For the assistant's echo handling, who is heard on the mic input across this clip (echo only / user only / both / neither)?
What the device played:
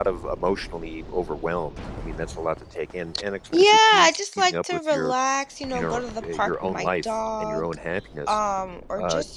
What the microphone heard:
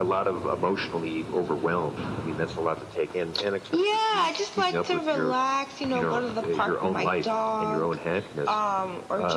echo only